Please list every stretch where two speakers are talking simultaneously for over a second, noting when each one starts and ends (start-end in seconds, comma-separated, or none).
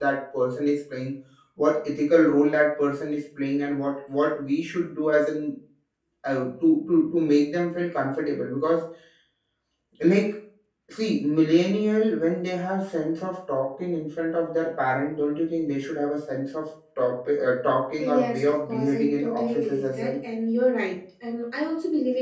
18.0-20.2